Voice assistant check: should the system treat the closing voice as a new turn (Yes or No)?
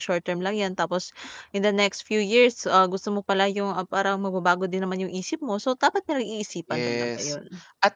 Yes